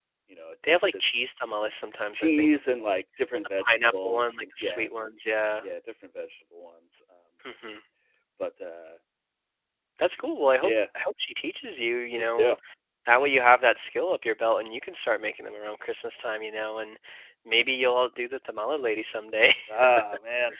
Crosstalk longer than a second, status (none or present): present